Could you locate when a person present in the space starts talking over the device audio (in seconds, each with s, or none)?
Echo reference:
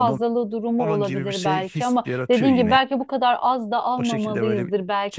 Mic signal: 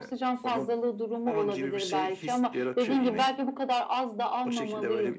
none